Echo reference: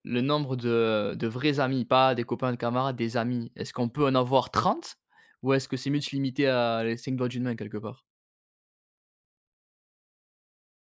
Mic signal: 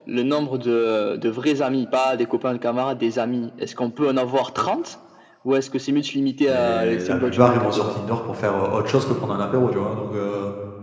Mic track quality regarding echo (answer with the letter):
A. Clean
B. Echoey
B